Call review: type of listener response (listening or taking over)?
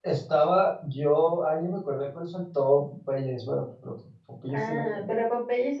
taking over